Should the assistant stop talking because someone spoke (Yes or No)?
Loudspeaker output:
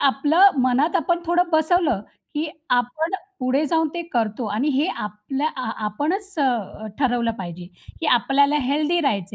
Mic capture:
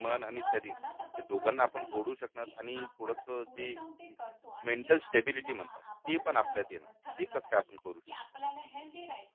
Yes